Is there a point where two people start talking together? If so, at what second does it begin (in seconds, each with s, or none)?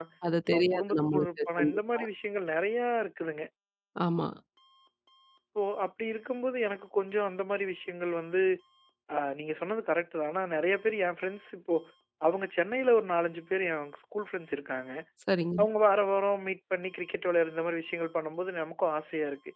0.5 s